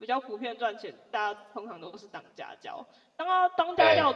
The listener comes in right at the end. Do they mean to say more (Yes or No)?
No